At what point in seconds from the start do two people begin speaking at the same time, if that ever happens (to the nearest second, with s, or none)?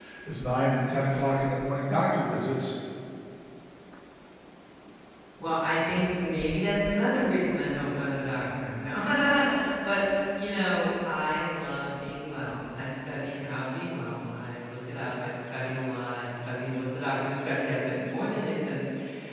none